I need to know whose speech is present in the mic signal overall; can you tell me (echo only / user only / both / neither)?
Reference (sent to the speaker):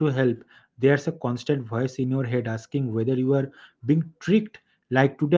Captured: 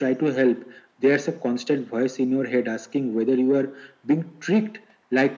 echo only